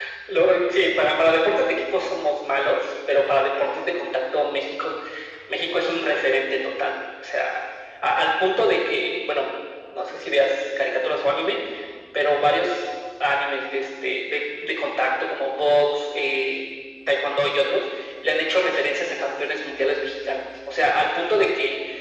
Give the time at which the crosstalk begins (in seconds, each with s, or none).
none